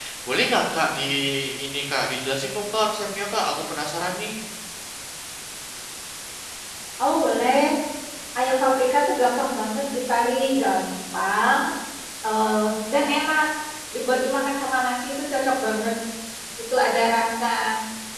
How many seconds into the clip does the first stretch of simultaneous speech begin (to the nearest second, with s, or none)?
none